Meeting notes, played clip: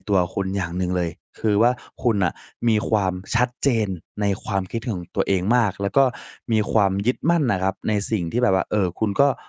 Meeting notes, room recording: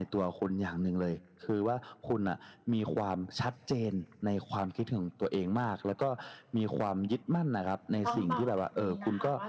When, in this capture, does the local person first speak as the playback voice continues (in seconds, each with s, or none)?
8.1 s